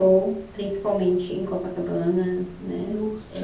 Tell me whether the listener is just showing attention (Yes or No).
No